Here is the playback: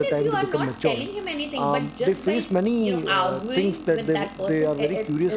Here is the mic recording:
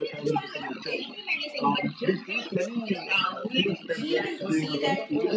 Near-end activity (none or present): present